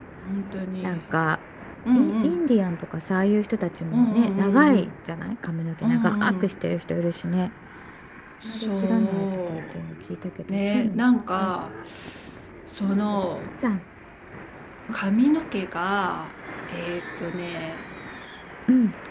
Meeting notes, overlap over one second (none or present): present